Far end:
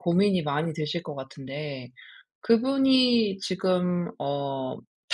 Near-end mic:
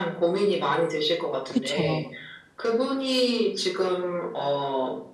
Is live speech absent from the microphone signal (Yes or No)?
No